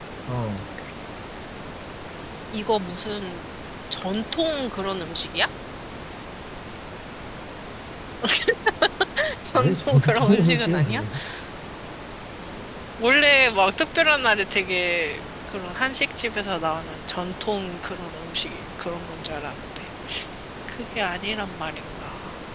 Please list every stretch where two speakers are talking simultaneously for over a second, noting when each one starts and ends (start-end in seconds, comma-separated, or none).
9.5-11.0